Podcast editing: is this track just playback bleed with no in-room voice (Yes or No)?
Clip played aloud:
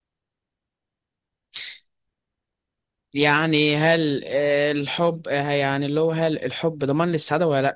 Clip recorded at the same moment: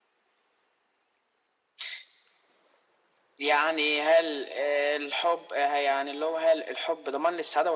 Yes